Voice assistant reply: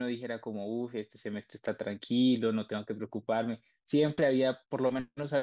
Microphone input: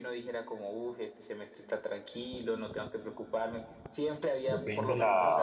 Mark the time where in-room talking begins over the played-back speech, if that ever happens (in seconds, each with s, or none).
4.5 s